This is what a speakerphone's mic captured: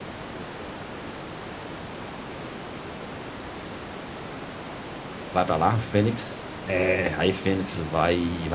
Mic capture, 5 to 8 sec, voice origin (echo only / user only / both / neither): user only